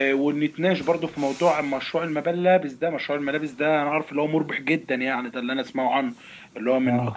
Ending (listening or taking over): listening